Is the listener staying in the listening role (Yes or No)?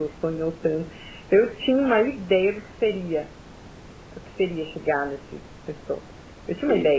Yes